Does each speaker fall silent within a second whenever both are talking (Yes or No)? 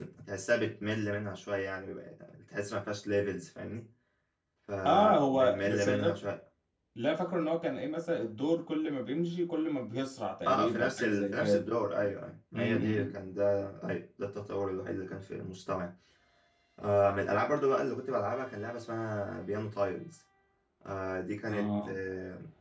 No